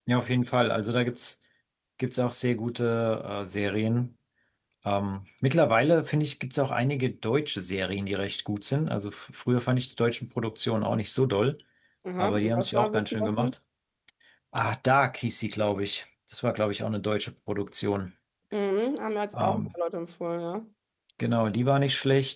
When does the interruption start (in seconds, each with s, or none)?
12.2 s